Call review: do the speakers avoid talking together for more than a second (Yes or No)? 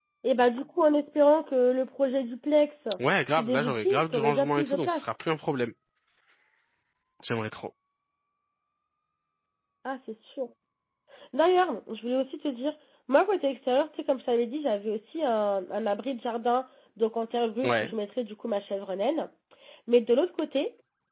No